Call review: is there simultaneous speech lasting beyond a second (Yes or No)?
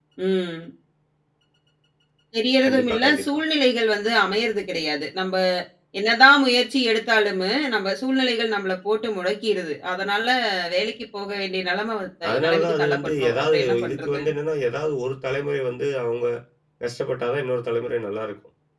Yes